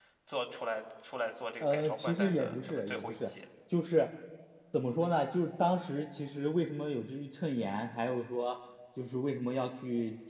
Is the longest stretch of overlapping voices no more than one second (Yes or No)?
No